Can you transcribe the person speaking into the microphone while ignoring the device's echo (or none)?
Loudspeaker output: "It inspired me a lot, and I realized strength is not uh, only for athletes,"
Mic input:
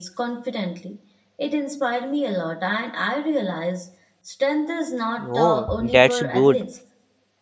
Oh, that's good.